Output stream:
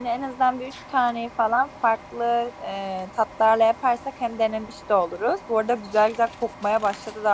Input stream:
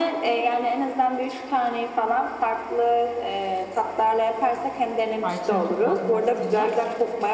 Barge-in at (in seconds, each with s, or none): 5.2 s